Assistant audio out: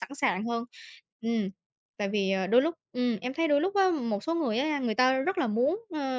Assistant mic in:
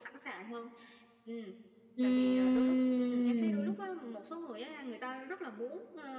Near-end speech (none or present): present